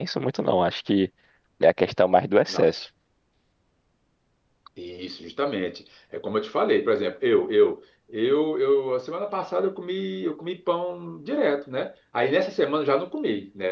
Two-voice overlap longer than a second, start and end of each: none

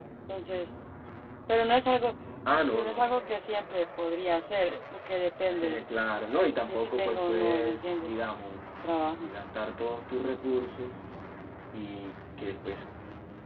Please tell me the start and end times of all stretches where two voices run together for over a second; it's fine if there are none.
6.7-8.1

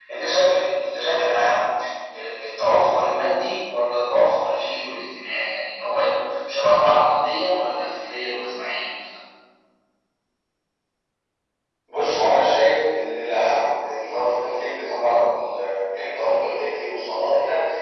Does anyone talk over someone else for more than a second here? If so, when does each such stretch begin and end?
none

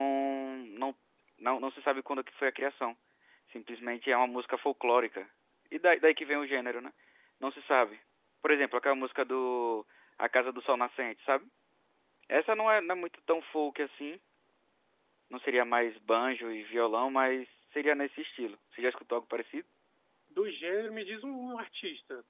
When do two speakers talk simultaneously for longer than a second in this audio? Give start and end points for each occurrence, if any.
none

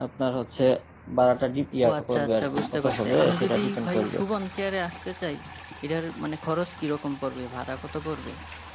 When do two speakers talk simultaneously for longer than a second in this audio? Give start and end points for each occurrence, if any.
1.8-4.2

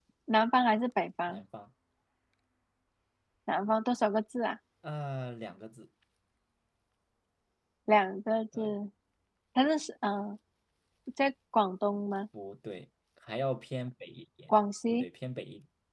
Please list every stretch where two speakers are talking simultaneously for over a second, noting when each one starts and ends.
none

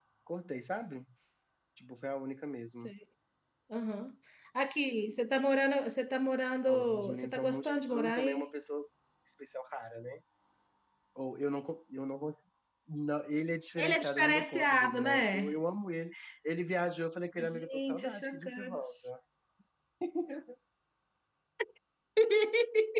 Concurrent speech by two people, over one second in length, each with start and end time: 6.7-8.5, 13.8-15.5, 17.4-19.1

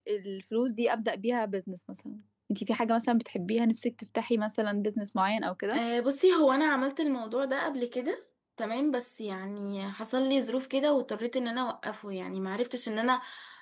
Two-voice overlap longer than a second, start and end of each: none

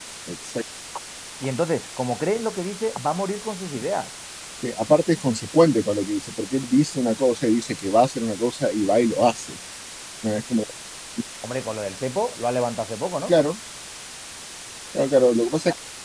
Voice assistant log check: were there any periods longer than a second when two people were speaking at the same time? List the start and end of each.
none

